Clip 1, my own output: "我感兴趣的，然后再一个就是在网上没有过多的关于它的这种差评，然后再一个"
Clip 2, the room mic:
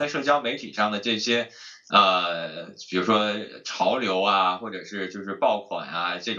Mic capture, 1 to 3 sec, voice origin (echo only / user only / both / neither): user only